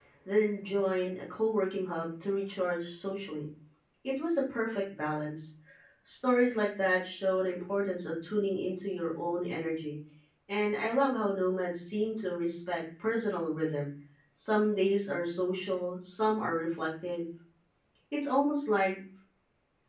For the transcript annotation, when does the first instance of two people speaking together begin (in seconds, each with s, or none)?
none